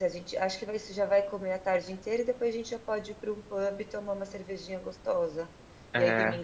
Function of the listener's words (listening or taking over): listening